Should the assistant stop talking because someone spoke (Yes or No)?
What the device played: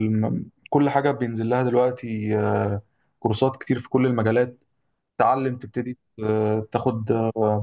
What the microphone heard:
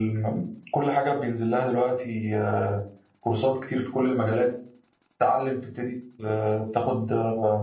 No